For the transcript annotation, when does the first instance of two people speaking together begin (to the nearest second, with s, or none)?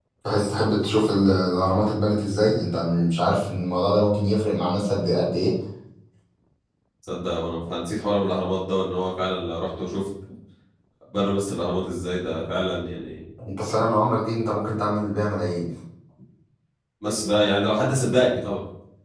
none